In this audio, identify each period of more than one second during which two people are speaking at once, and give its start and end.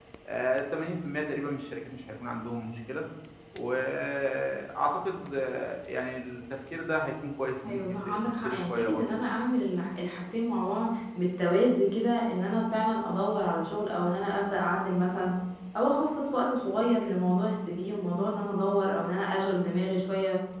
7.6-9.1

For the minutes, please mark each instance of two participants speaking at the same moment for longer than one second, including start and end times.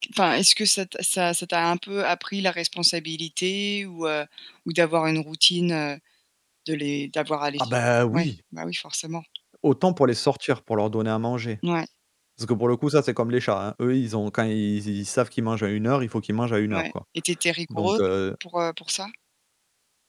none

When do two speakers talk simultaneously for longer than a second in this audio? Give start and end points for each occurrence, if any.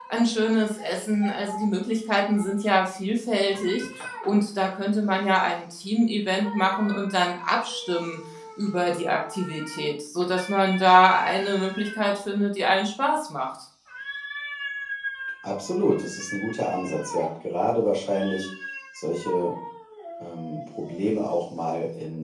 none

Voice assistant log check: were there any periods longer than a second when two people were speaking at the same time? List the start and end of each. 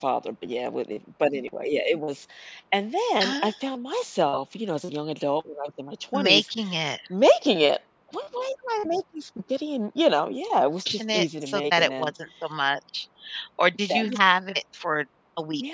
10.9-12.1

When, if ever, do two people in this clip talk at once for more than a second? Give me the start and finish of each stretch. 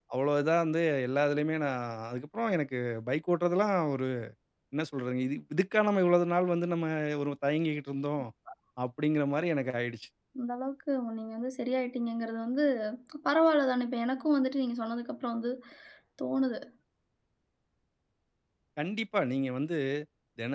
none

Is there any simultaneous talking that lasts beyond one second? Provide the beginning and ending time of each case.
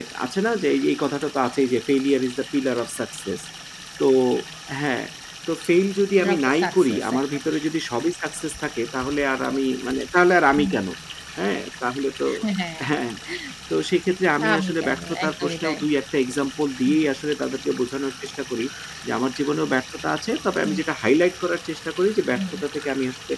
6.2-7.4, 14.5-15.8

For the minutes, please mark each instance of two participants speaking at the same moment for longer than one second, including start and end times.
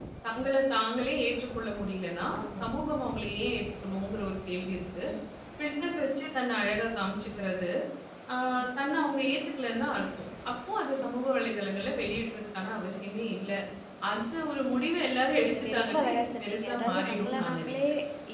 15.5-17.7

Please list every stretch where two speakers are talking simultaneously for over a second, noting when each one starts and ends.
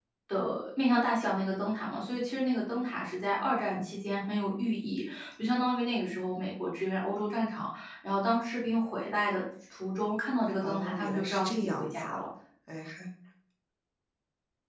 10.6-12.2

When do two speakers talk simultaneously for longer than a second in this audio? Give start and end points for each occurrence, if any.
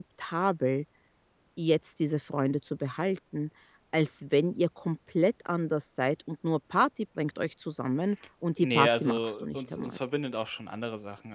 8.6-10.0

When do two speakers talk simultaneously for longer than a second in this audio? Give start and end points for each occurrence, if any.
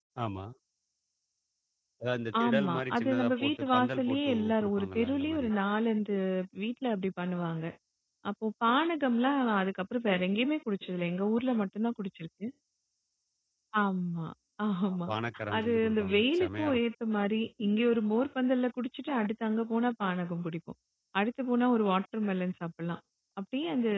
2.4-5.5, 15.6-16.8

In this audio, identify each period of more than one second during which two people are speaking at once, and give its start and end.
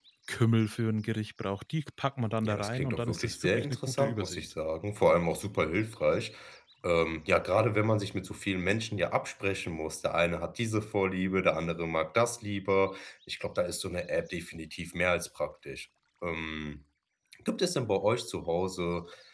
2.5-4.4

